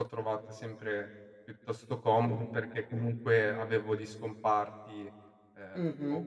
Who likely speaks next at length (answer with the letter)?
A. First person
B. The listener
B